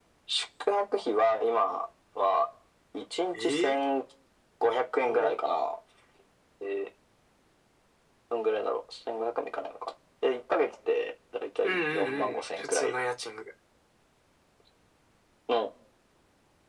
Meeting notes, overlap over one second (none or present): present